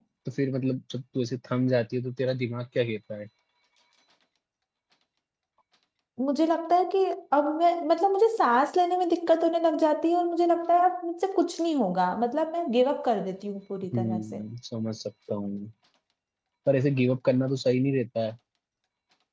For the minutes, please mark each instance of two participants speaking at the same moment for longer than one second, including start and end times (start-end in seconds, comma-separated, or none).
none